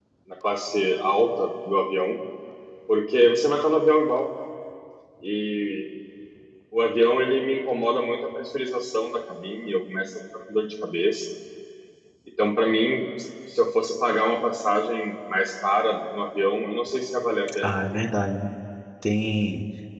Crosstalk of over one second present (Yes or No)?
No